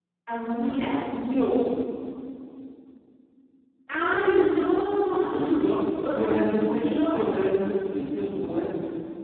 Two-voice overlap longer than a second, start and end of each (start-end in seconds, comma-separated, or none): 6.0-7.3